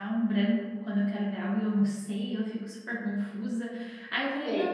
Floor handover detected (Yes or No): No